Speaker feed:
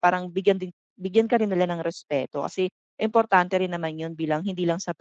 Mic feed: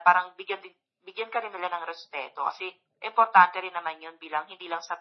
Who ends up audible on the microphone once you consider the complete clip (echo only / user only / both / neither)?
echo only